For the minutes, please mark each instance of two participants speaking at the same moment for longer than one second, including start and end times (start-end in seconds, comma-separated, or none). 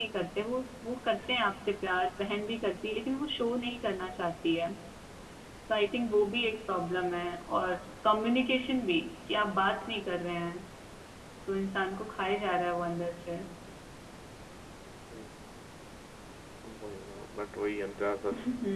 none